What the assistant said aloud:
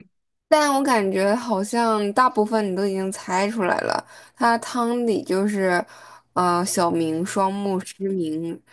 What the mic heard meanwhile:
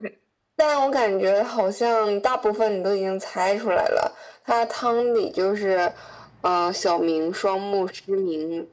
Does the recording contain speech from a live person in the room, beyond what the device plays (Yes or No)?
No